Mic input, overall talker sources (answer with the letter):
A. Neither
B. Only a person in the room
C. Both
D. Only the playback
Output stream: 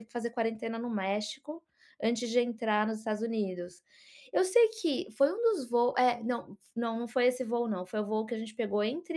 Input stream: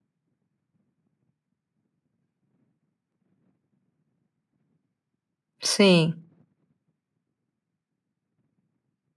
B